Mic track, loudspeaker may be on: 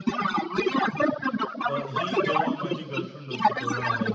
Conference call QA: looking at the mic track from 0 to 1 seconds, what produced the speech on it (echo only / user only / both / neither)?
echo only